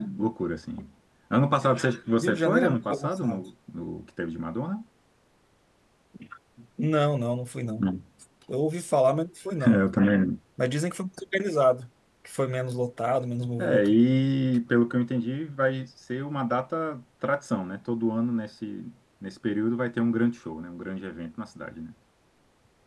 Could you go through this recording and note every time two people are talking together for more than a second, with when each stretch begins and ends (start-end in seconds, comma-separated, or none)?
2.2-3.4